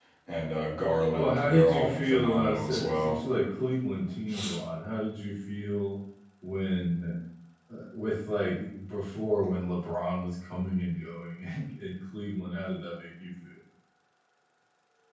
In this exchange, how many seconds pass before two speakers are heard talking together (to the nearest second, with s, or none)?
1 s